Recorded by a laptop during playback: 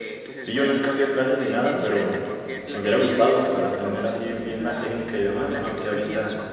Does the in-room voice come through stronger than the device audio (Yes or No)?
Yes